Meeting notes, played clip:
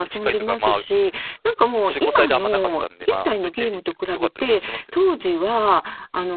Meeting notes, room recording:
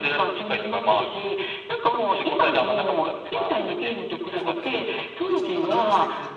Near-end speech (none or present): present